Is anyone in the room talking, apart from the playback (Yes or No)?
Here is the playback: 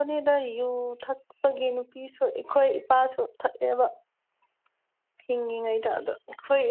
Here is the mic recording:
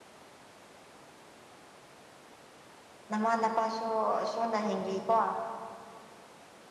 Yes